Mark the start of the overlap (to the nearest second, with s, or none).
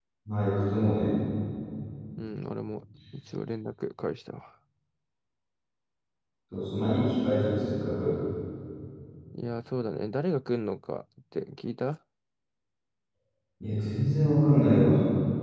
none